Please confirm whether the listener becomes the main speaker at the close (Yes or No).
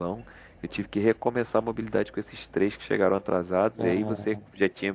No